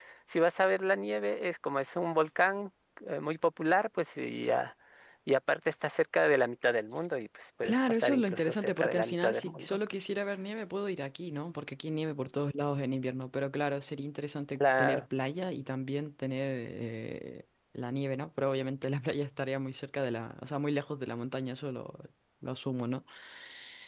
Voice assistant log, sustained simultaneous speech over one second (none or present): present